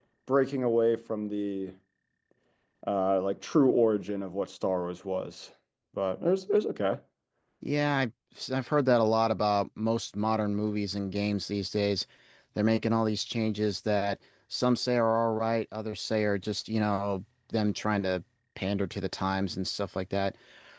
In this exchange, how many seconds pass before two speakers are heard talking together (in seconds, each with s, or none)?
none